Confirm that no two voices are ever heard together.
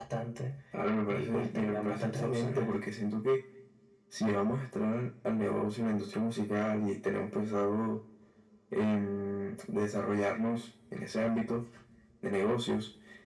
No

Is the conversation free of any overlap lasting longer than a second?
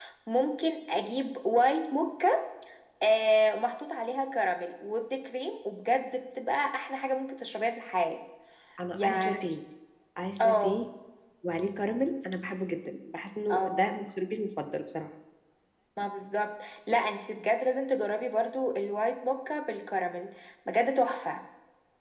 Yes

